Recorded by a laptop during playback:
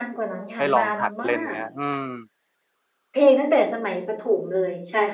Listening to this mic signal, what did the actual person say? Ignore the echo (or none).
ๆให้ลองหัดเล่นไหมฮะอืม